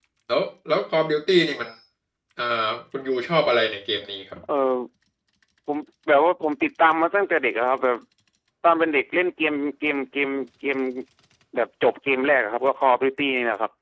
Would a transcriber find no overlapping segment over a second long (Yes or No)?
Yes